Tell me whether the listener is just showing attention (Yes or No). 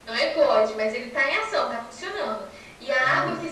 Yes